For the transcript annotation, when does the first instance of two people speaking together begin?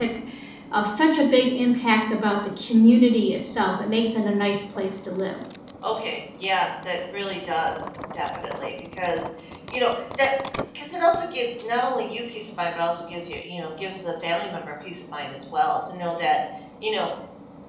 none

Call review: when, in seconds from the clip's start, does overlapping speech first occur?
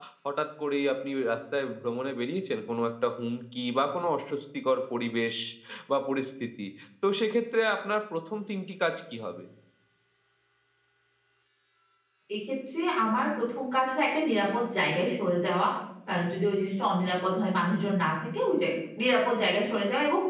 none

